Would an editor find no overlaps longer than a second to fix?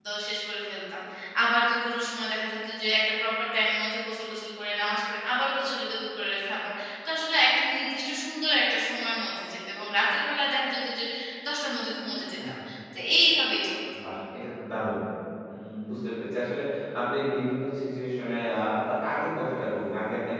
Yes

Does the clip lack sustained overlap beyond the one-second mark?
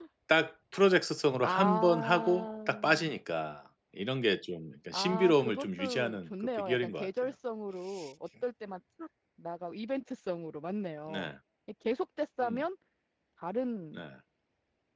No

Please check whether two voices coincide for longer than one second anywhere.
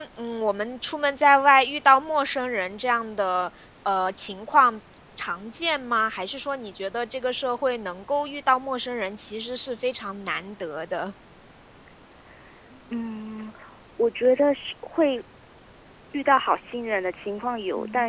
No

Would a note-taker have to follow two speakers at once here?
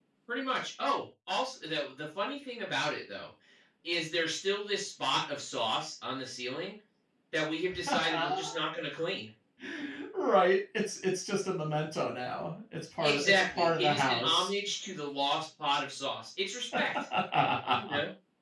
Yes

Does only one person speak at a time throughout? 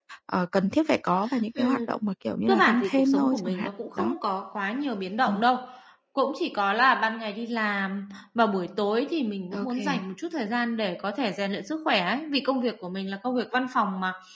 No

